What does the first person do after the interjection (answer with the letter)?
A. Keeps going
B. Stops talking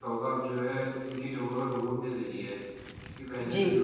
A